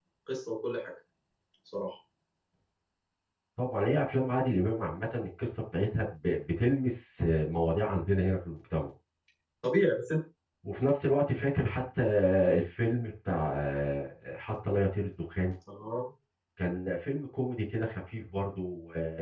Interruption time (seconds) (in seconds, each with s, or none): none